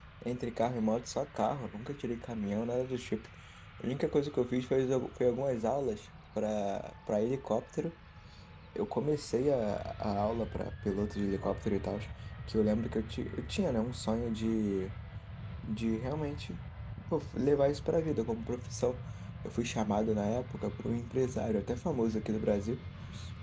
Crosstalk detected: No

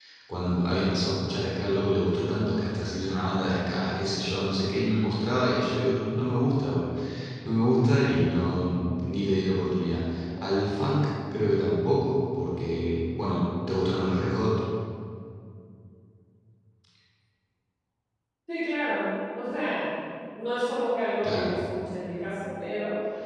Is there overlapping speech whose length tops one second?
No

